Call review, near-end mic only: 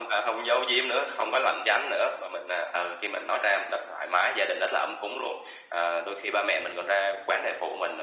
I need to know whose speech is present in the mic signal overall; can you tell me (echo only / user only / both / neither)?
echo only